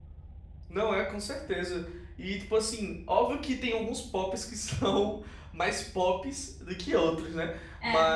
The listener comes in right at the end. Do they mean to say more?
No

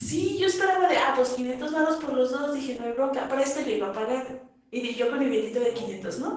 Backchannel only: Yes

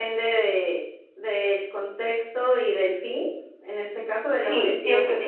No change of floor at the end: No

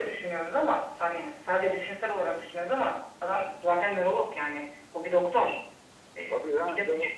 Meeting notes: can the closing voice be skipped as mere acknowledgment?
No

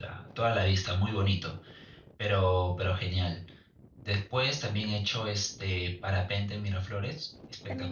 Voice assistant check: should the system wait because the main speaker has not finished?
Yes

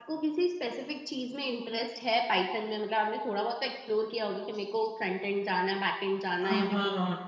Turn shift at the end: Yes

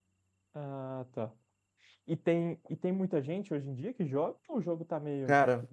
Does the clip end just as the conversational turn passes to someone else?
Yes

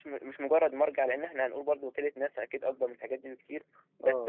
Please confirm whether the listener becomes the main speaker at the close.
No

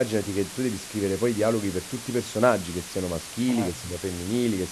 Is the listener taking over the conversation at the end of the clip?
No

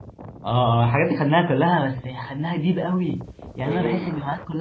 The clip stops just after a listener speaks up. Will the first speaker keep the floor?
Yes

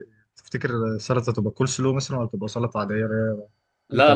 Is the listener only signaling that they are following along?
No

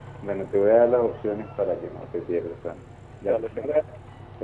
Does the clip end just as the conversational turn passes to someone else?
No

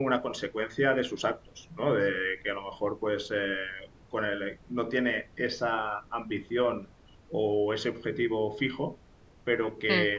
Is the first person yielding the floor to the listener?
No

